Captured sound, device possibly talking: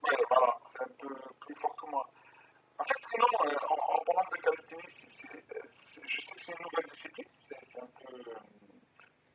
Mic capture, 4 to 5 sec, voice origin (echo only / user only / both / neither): echo only